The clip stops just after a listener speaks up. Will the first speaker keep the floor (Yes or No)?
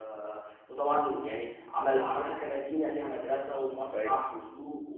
Yes